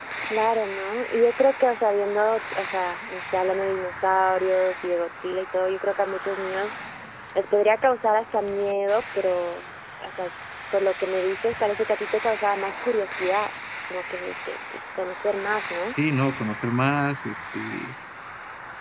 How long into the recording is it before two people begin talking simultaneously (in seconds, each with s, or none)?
none